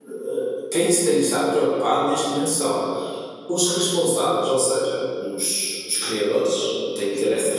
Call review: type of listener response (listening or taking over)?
listening